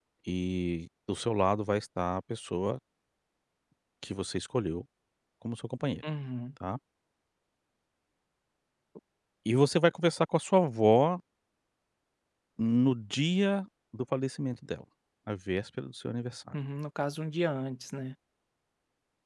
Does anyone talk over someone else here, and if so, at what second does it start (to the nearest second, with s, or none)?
none